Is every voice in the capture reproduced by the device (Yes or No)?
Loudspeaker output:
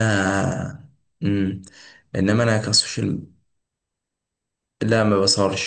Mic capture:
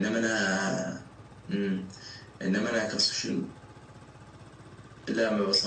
Yes